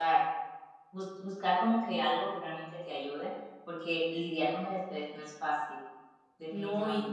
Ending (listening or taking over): taking over